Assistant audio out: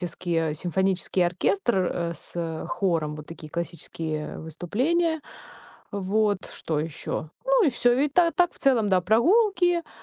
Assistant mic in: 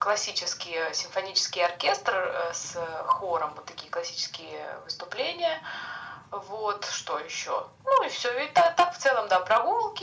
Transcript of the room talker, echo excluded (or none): none